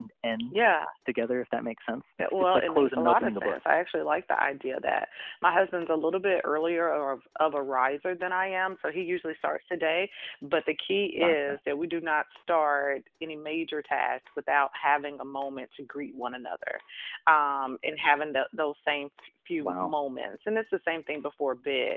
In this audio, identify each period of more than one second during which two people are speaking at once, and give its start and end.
2.2-3.6

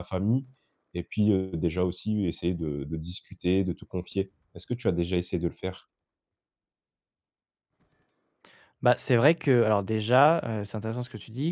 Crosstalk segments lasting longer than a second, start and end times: none

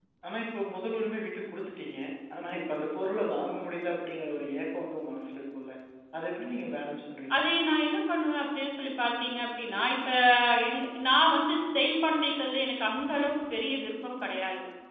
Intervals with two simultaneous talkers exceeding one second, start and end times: none

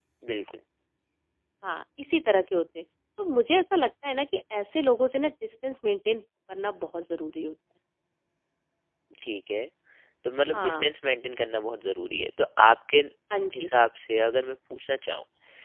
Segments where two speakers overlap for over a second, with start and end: none

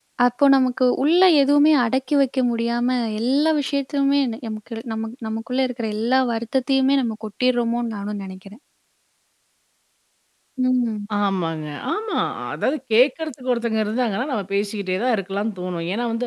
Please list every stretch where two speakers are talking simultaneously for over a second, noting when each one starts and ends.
none

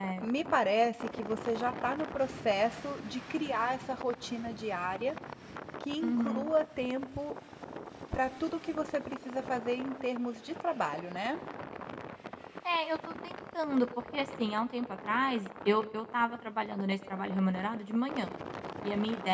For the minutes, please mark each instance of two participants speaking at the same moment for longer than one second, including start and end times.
none

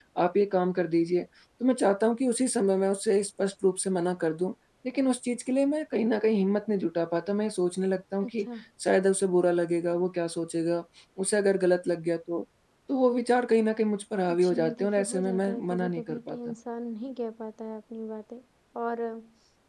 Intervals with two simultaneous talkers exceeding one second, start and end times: 14.3-16.5

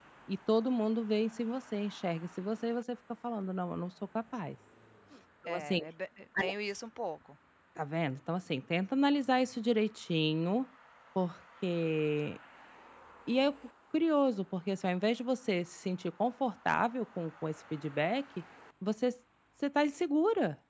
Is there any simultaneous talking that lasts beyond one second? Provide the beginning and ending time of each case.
none

